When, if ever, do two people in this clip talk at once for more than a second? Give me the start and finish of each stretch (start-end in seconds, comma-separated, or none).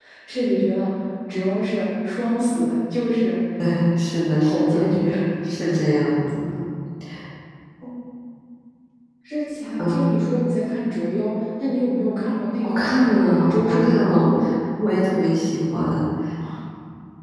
12.6-14.3